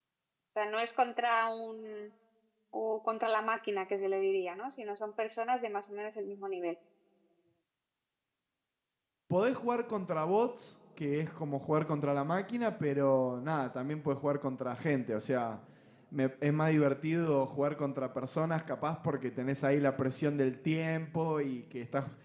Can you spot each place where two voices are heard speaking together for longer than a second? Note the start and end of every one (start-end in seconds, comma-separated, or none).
none